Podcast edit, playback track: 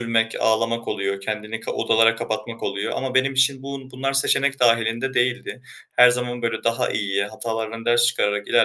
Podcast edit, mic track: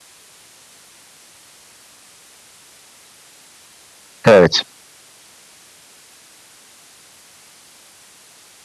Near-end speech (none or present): present